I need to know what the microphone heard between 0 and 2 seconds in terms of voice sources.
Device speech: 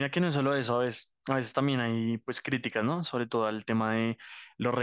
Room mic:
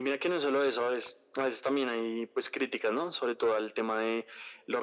echo only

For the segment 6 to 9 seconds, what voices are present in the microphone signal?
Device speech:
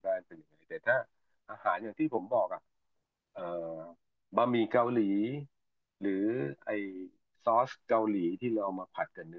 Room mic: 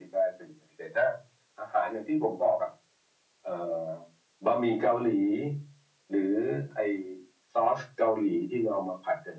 echo only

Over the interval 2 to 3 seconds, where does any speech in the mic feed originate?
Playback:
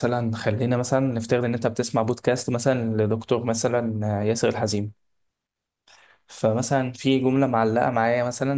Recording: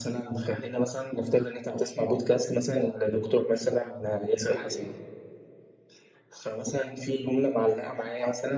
echo only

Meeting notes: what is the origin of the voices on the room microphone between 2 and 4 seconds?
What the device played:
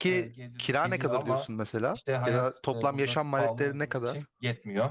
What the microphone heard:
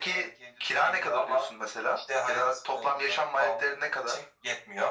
echo only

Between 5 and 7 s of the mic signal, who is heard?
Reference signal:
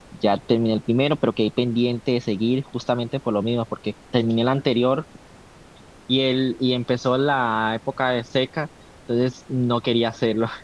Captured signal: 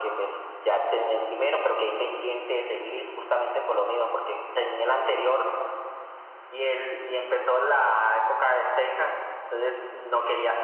echo only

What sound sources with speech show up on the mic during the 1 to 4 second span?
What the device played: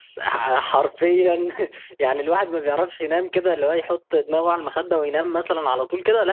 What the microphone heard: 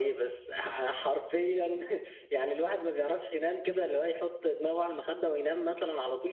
echo only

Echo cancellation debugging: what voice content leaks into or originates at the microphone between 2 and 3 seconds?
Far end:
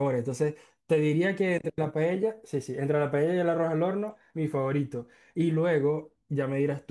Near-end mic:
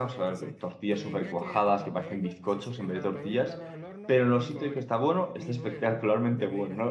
both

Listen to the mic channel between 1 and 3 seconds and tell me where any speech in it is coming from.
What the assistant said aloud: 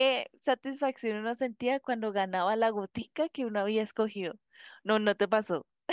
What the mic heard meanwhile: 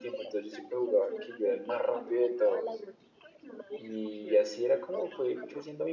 both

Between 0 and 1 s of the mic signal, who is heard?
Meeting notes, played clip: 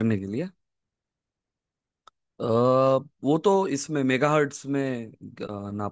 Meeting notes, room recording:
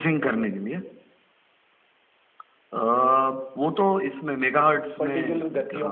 echo only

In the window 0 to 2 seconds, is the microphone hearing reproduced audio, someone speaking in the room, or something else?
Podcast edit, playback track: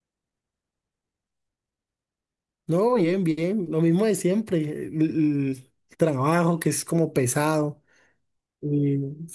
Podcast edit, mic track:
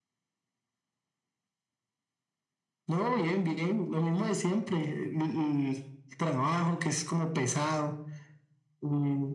neither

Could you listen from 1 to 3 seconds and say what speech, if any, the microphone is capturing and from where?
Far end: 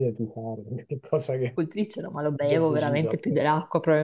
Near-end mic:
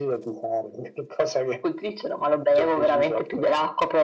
echo only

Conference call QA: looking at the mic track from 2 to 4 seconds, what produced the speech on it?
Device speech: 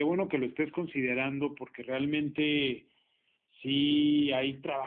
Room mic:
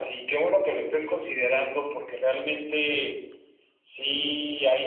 echo only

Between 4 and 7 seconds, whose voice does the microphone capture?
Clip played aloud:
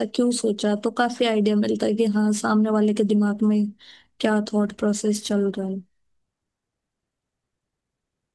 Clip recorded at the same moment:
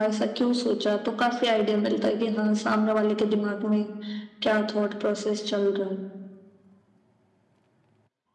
echo only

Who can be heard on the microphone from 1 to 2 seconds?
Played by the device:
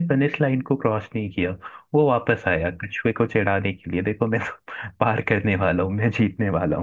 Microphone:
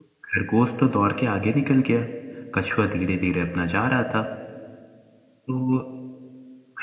user only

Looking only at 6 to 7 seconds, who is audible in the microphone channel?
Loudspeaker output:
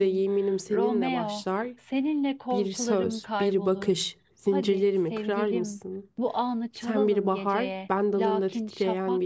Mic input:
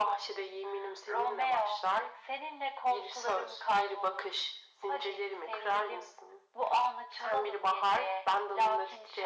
echo only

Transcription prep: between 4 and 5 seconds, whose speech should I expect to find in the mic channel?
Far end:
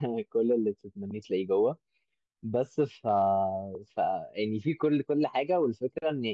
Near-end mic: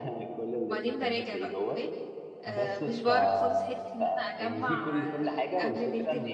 both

